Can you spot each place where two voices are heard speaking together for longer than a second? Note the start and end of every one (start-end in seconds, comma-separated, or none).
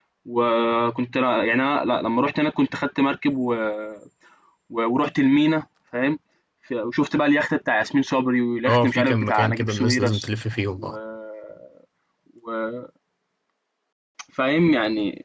8.7-10.2